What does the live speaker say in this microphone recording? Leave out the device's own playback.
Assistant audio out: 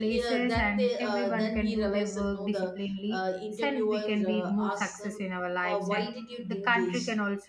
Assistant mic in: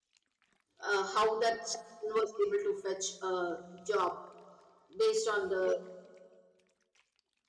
uh, how that son was able to fetch a job based on the

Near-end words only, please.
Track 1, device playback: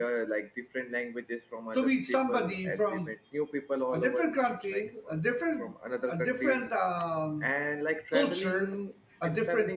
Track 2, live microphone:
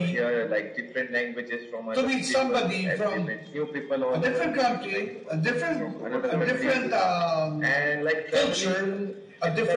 So, what's your point on this?

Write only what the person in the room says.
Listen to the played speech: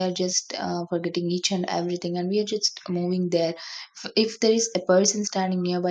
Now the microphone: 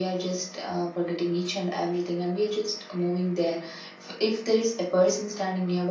none

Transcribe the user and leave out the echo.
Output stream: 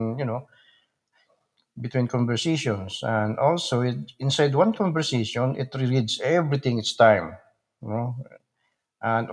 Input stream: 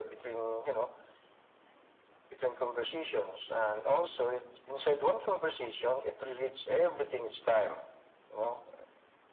none

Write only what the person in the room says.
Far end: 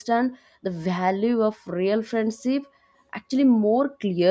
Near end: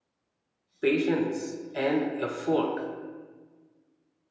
patience, and effort.

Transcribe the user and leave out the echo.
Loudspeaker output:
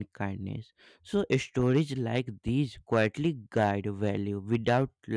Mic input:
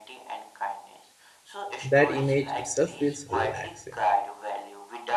That image itself feels relaxing.

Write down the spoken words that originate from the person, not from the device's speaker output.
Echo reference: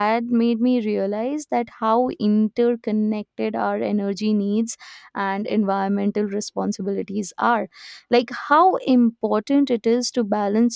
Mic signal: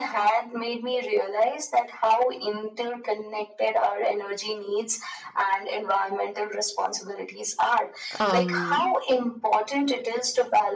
um,

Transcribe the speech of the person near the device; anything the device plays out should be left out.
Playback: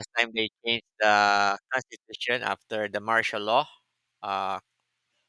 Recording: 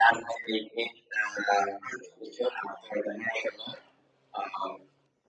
none

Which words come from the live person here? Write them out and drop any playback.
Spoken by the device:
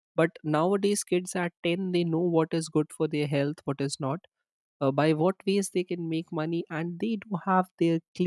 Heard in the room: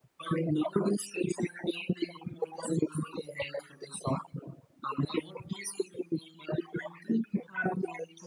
none

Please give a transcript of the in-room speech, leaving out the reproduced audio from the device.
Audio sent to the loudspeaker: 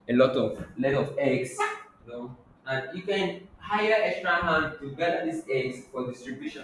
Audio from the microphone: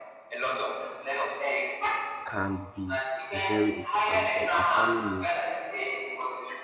can be a very important job, and farming is

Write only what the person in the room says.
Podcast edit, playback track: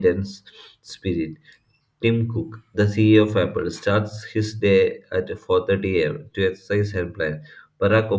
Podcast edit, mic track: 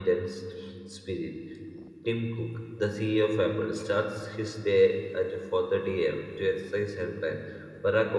none

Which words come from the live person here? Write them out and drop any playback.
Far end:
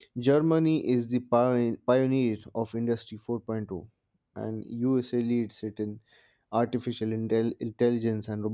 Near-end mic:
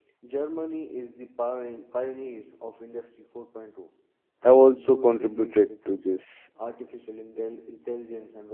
have also contributed to this

